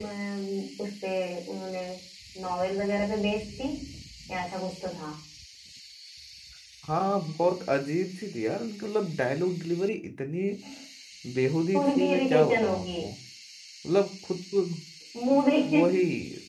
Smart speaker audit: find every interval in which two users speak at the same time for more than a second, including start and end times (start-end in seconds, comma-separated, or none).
11.7-13.0